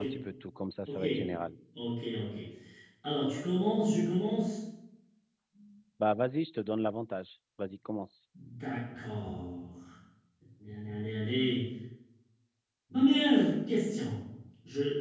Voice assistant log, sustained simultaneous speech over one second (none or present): none